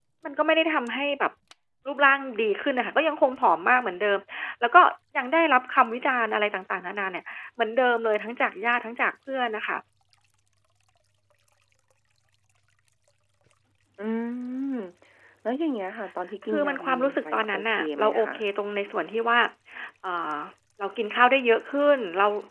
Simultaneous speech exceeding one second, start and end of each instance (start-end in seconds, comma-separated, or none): 16.5-18.3